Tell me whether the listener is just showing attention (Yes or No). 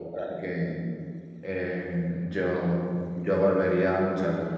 No